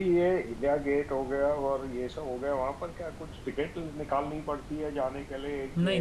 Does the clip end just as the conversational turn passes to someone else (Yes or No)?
No